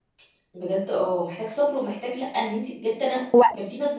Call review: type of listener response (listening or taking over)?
listening